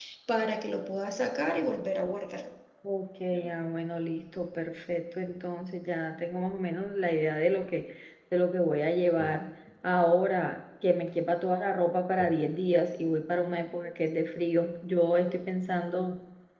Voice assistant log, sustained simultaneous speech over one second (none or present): none